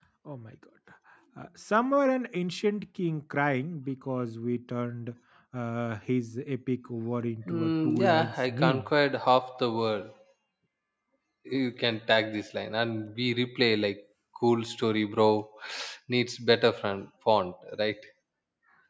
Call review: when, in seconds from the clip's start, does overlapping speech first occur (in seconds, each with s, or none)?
7.5 s